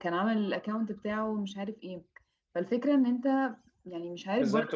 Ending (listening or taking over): taking over